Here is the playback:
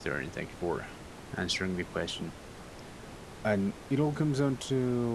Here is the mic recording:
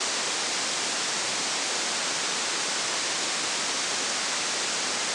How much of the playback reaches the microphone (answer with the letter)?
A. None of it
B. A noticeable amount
A